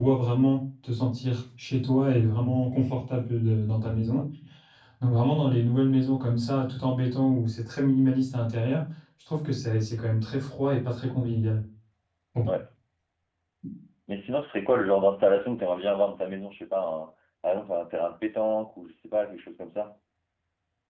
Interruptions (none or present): none